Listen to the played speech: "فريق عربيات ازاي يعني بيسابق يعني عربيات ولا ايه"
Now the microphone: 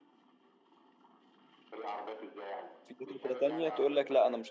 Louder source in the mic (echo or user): user